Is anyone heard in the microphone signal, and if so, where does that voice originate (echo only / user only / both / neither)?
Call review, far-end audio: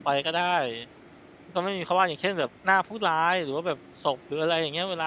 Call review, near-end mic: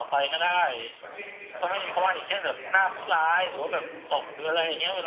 both